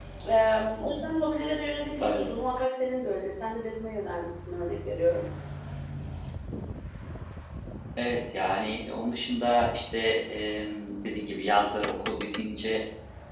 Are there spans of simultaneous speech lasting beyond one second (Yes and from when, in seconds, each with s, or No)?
No